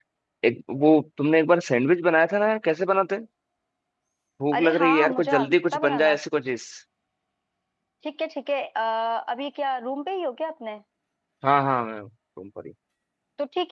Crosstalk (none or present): present